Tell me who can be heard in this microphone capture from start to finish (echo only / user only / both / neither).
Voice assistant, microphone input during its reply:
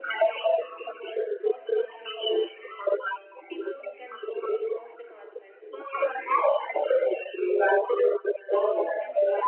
both